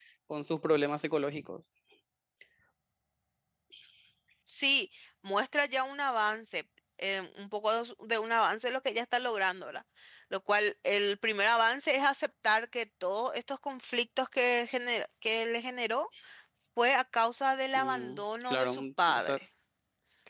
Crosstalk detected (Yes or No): Yes